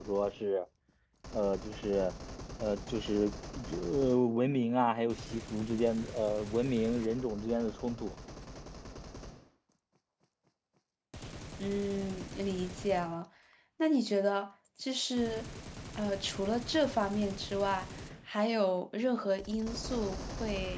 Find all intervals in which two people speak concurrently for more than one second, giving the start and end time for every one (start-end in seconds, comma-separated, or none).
none